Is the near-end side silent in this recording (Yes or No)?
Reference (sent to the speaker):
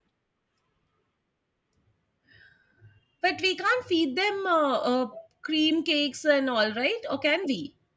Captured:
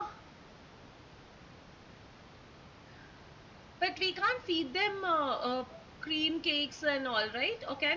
Yes